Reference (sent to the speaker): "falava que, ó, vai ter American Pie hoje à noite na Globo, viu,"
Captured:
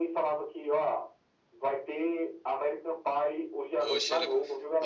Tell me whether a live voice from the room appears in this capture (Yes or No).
Yes